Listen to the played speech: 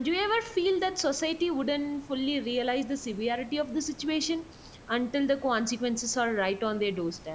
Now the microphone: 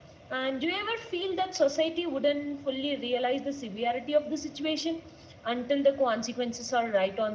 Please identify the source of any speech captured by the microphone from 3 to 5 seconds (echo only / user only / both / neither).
echo only